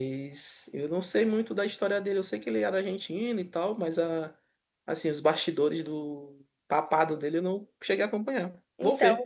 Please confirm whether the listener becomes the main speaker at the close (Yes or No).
Yes